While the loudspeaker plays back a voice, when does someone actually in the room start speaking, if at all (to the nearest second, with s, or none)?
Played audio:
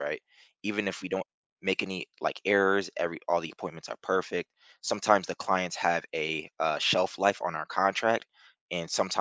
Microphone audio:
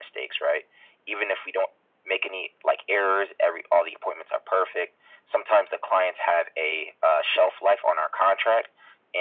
none